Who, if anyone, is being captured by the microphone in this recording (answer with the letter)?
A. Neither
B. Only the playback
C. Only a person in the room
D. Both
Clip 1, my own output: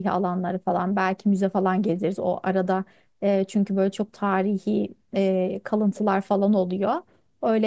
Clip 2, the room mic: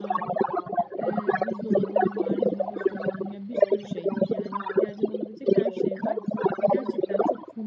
D